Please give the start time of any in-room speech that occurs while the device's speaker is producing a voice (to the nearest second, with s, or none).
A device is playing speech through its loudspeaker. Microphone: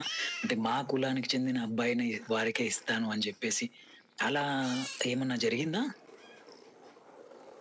none